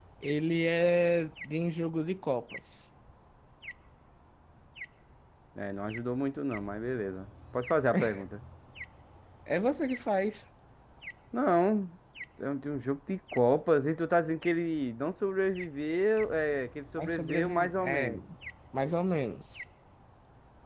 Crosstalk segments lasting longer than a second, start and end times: 17.0-18.2

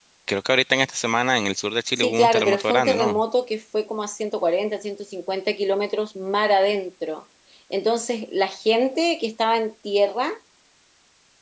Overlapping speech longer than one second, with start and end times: 2.0-3.2

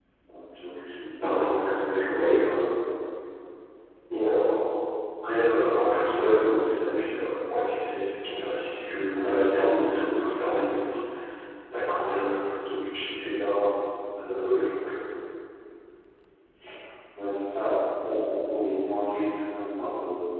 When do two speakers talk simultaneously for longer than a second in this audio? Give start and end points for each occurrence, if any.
1.2-2.6

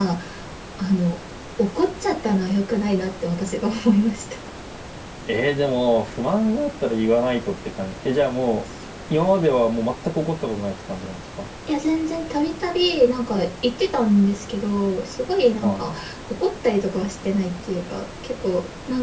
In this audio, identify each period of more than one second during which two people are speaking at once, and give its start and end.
none

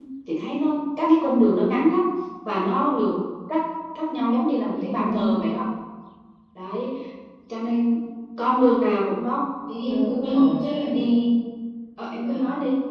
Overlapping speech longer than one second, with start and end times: none

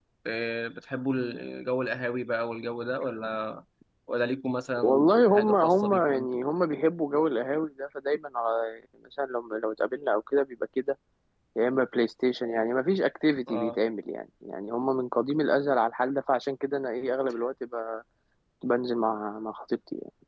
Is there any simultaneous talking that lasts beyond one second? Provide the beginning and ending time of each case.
4.8-6.4

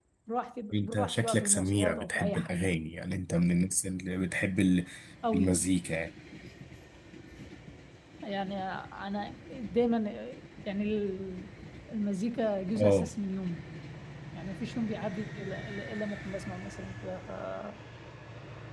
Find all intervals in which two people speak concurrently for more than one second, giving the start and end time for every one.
0.7-2.7

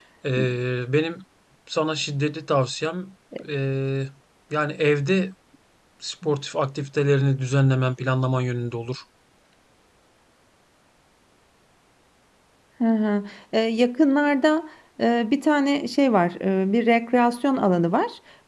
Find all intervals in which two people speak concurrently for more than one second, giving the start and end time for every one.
none

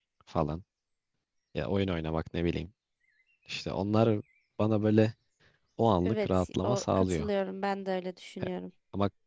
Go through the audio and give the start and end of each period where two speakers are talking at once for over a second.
6.0-7.3

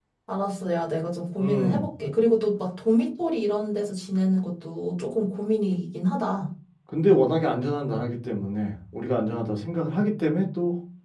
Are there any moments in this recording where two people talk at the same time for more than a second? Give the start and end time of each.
none

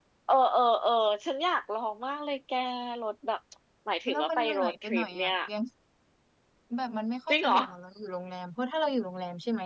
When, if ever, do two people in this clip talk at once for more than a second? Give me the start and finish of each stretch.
4.1-5.3

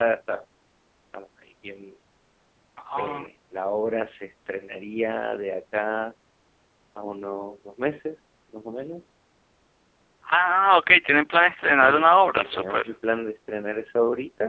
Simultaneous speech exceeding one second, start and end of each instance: 11.7-12.9

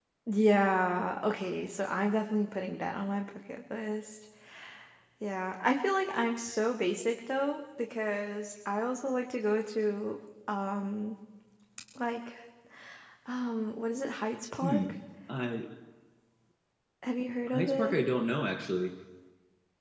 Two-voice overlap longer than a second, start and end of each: none

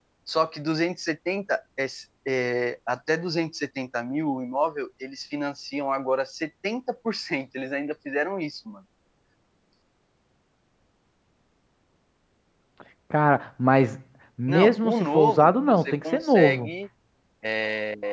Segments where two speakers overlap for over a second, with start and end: 14.5-16.7

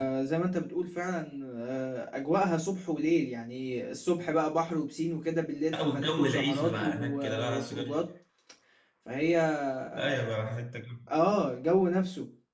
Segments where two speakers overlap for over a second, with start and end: 5.7-7.9

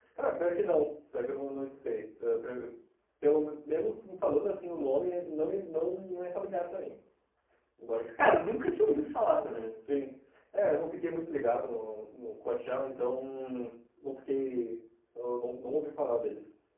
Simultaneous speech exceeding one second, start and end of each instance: none

